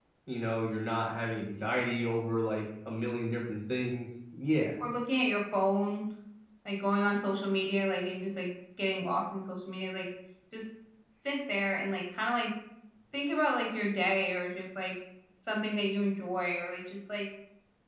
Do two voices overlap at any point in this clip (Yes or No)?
No